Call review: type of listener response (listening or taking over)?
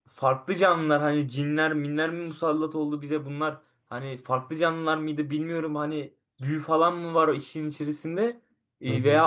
listening